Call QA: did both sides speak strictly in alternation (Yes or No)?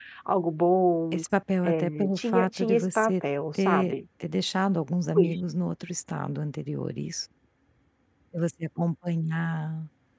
No